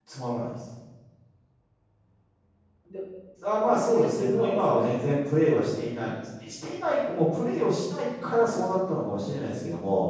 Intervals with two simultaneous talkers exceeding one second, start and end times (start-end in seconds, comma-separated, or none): 3.7-5.2